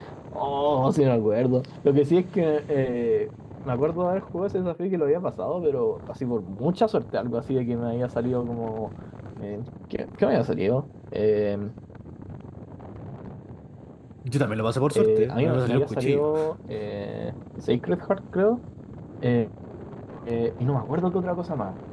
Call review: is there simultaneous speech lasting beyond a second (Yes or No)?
Yes